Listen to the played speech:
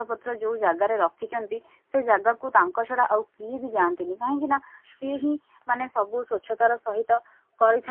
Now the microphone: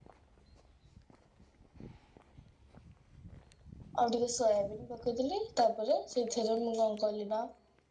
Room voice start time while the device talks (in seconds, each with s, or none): 4.0 s